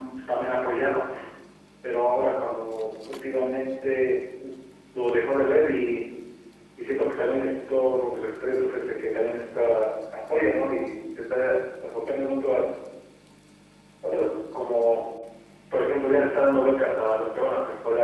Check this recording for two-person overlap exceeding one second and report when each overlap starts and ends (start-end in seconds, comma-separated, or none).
none